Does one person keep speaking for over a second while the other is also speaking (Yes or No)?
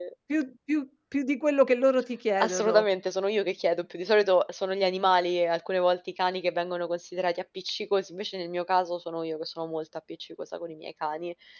No